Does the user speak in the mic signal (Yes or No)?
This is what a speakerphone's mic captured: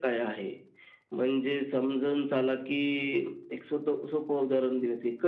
No